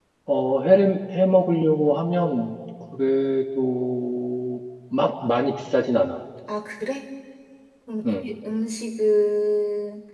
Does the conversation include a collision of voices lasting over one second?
No

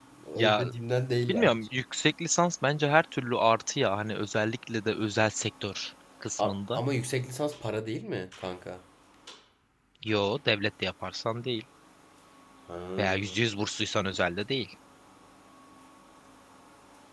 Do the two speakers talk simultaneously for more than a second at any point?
No

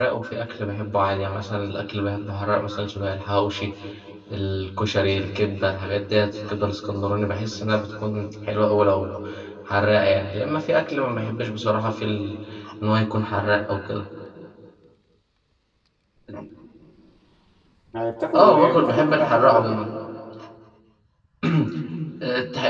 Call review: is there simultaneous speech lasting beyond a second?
Yes, from 18.4 s

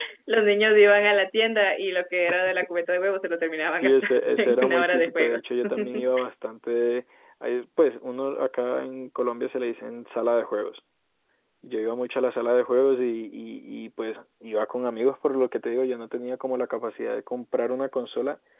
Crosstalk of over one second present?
Yes, from 3.8 s

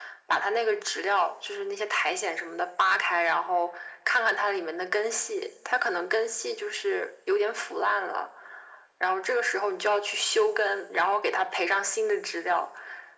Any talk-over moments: No

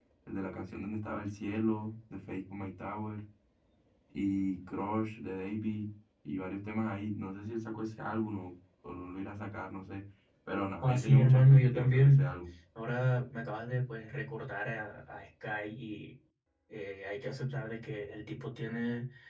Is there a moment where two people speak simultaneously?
Yes, from 10.8 s

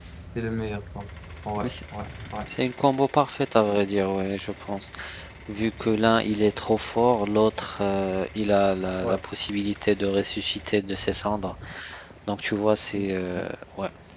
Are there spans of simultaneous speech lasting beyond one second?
No

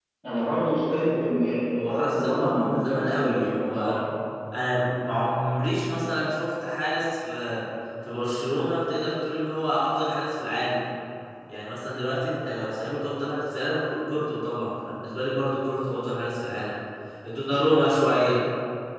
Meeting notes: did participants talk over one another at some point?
Yes, from 1.9 s

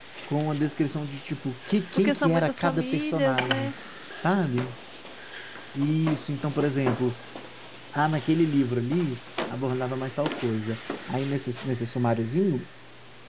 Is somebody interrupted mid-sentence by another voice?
Yes, from 2.0 s

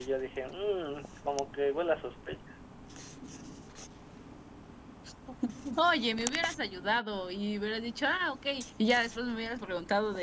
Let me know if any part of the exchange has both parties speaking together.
No

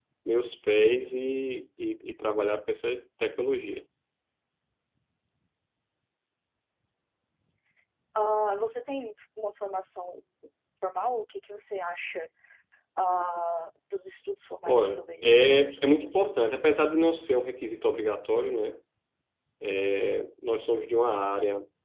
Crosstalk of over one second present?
Yes, from 14.7 s

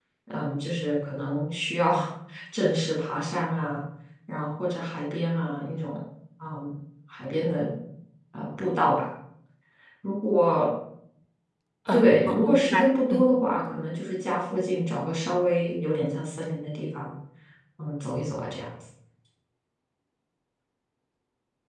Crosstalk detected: Yes, from 11.9 s

